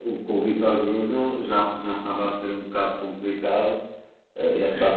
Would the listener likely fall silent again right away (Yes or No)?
Yes